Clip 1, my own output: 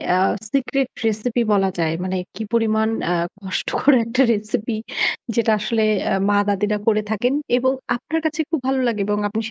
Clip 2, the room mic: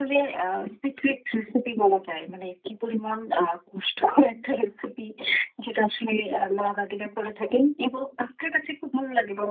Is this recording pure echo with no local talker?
Yes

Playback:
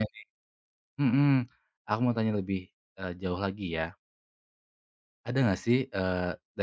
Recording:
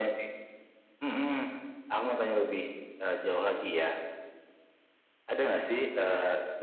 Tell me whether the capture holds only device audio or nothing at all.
Yes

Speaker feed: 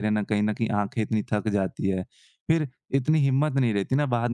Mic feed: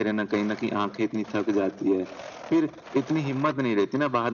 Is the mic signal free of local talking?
Yes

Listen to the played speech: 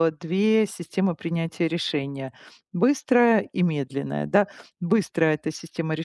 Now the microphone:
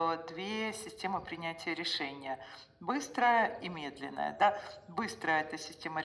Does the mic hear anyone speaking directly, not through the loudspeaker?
No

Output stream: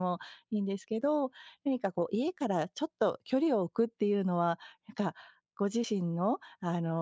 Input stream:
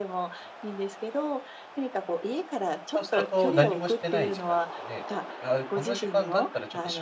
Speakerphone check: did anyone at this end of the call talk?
Yes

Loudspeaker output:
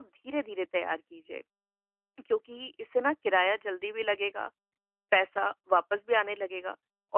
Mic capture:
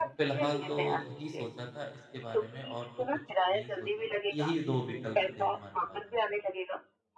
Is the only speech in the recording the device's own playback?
No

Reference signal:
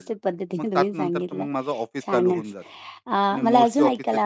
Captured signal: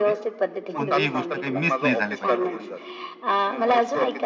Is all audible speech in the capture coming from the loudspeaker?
No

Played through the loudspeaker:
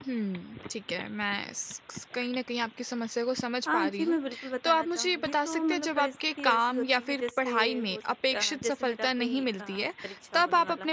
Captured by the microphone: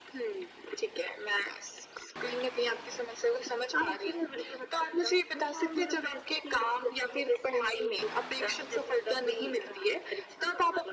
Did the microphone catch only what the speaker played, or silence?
Yes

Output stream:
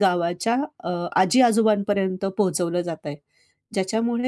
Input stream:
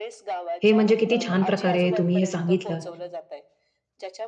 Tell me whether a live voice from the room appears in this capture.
Yes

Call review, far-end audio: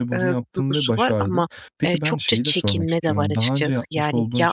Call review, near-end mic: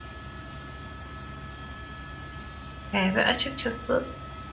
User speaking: Yes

